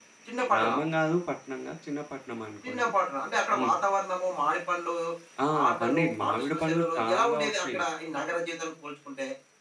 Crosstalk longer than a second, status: present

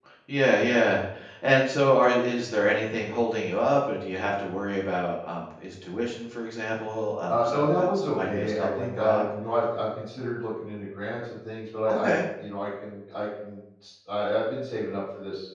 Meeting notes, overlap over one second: present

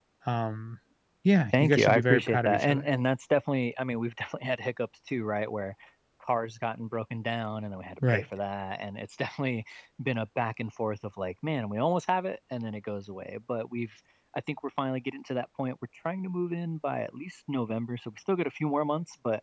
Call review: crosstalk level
present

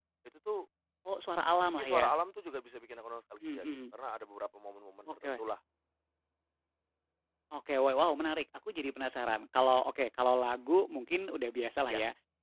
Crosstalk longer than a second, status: none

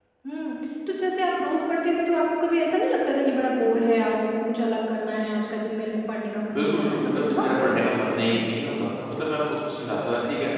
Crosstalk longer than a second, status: present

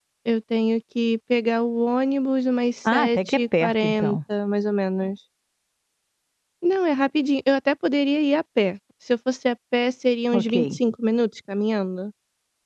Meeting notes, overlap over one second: present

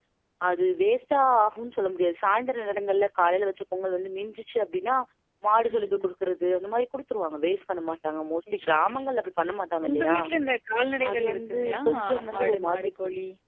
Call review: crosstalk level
present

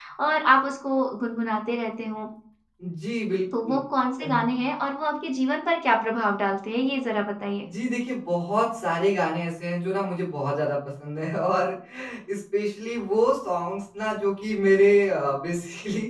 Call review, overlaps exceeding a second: none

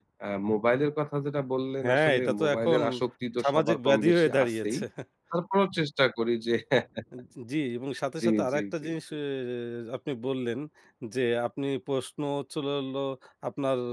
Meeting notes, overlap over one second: present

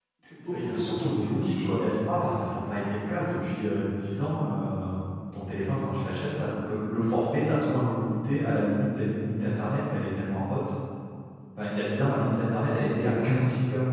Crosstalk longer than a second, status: present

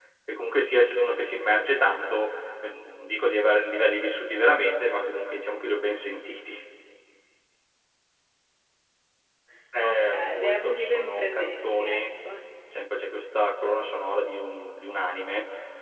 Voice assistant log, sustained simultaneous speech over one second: present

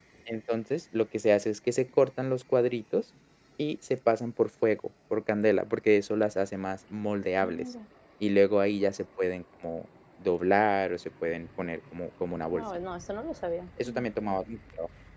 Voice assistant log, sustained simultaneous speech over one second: none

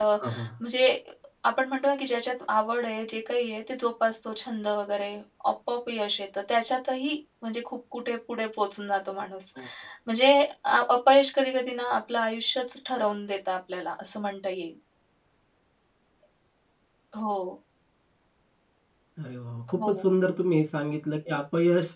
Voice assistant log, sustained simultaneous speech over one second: none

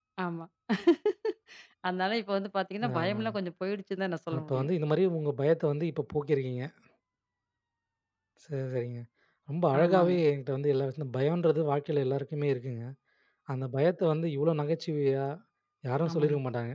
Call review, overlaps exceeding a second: none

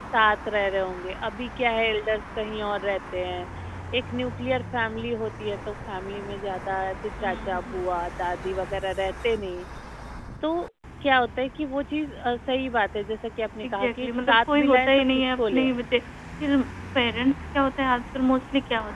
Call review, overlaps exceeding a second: present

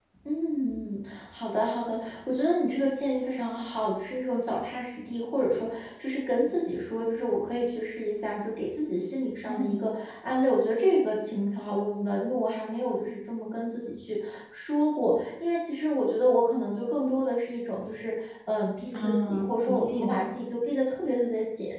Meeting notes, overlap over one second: present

